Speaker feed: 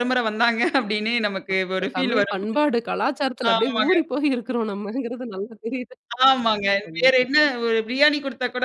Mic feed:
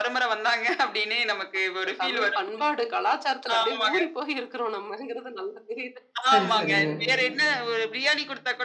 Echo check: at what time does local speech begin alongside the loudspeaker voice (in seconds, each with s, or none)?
6.3 s